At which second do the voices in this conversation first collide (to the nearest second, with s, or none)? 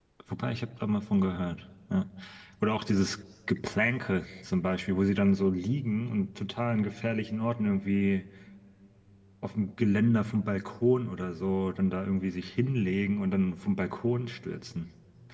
none